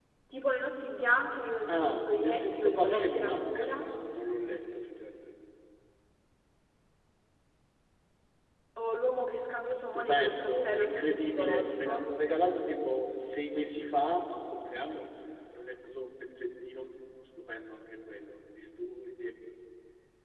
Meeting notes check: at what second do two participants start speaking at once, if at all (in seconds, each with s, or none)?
1.7 s